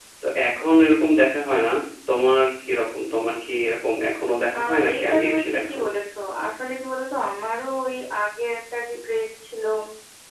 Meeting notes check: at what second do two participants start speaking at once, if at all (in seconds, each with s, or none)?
4.5 s